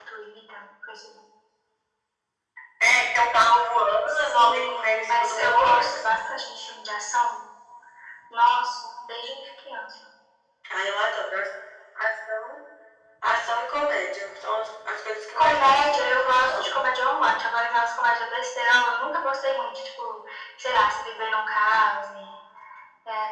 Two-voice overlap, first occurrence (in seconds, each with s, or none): 4.1 s